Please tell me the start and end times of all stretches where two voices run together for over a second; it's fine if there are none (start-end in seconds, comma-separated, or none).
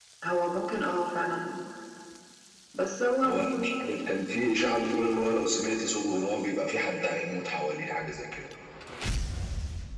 none